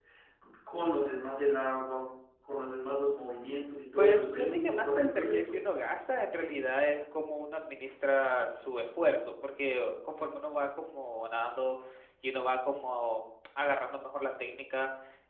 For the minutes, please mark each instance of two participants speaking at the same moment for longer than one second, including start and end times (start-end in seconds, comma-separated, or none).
4.0-5.6